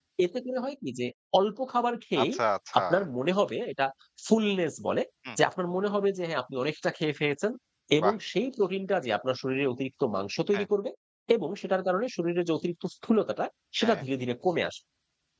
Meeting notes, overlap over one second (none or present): none